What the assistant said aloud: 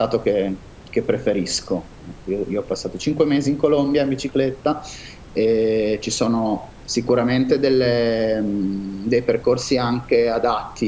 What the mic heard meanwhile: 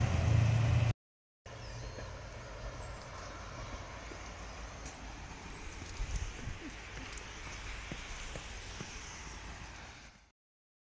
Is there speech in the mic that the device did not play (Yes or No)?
No